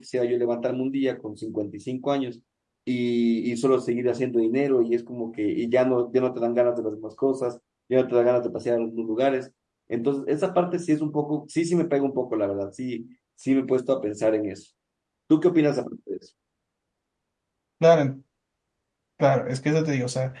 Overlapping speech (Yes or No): No